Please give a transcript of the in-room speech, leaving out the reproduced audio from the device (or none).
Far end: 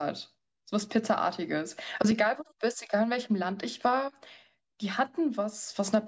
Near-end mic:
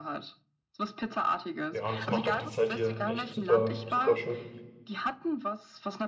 Ja, und das macht auch die Zeit hier echt super, super schön.